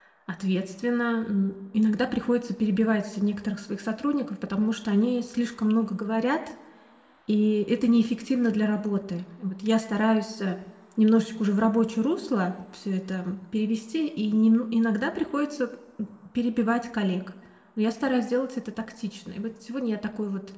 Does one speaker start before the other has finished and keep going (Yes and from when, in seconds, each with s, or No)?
No